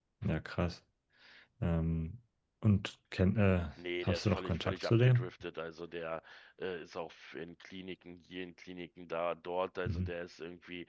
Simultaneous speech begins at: 4.0 s

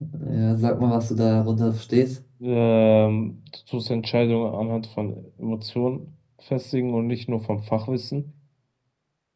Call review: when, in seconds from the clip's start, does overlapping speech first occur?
none

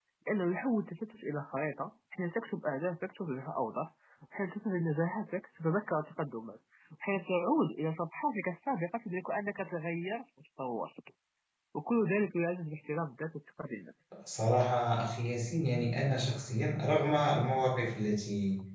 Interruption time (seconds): none

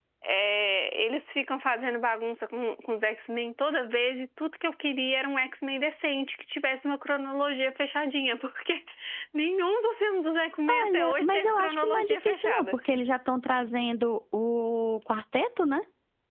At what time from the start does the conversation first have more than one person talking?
10.7 s

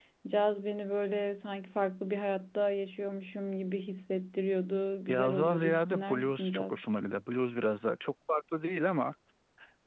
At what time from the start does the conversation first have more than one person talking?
5.1 s

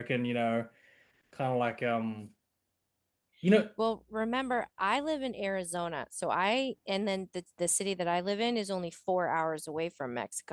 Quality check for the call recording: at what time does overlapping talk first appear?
none

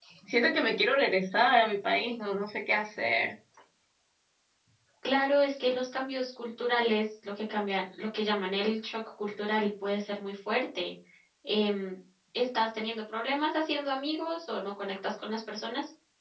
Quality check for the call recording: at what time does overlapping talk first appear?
none

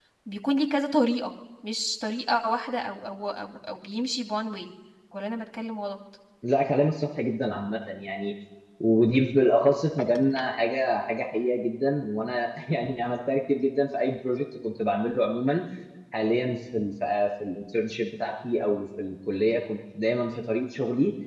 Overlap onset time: none

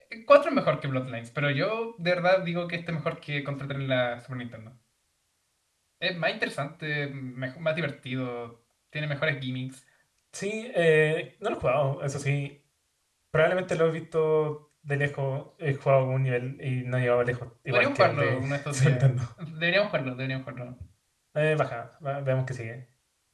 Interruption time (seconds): 17.7 s

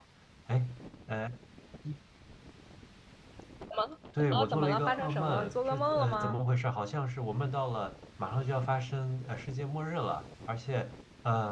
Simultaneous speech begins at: 4.3 s

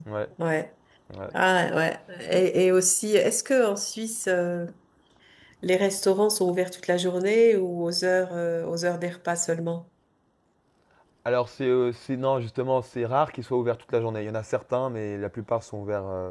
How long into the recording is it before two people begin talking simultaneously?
none

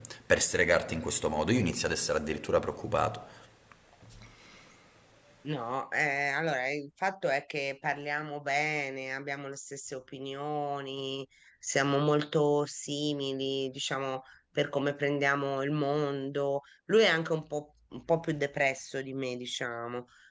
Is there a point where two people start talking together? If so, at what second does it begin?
none

